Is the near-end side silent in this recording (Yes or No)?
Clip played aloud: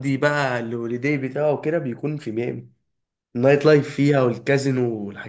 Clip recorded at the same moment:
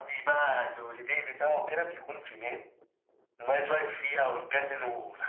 Yes